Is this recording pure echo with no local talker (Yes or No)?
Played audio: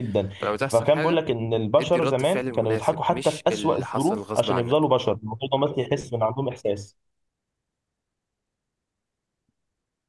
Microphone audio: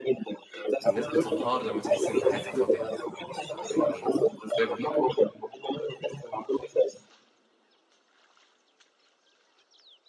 No